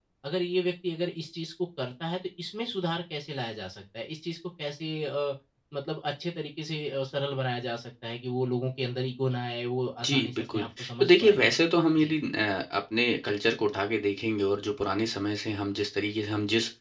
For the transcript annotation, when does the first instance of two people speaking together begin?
10.0 s

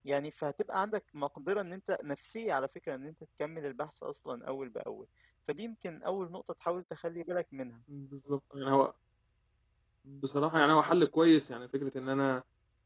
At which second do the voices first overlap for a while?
none

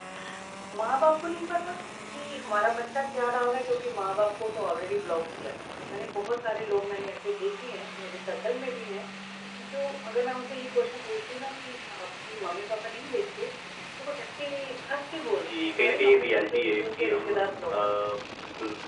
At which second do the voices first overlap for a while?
15.4 s

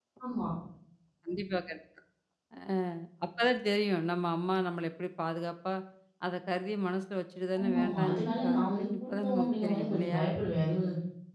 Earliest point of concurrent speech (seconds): 7.6 s

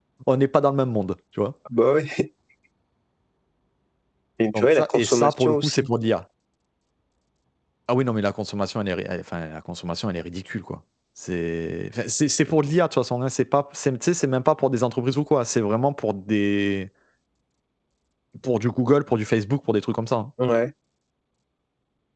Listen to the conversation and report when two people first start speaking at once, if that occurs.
4.5 s

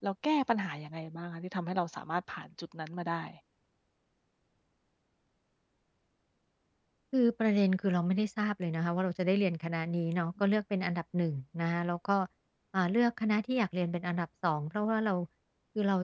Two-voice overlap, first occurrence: none

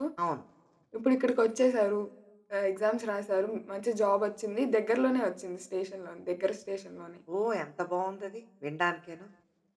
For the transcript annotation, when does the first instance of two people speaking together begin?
none

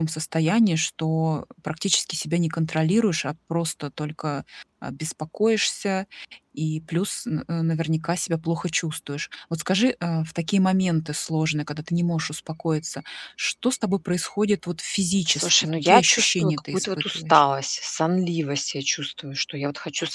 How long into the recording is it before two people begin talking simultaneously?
15.3 s

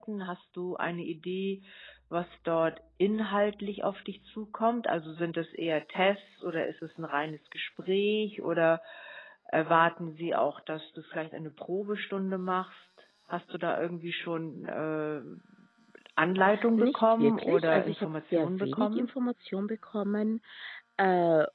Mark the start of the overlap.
16.8 s

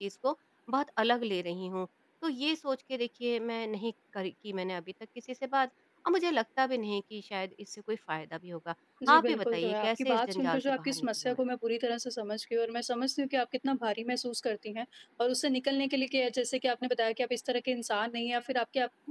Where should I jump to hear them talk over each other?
9.2 s

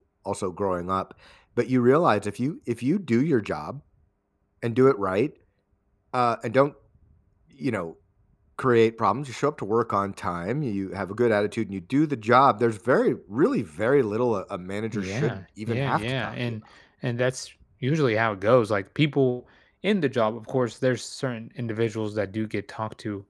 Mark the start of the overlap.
14.9 s

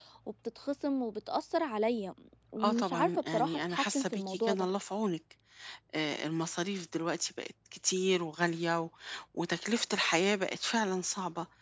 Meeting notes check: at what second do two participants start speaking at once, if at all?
2.6 s

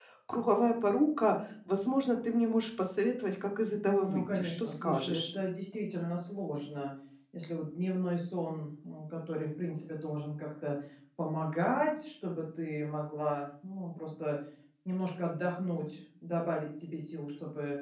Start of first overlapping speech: 3.9 s

